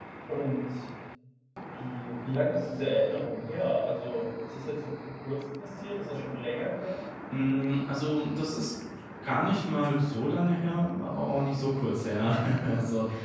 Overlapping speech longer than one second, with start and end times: none

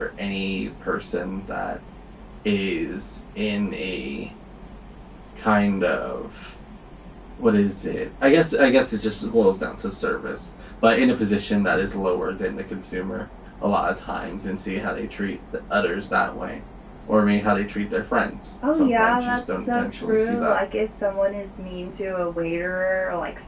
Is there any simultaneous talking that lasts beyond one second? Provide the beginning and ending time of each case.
18.7-20.6

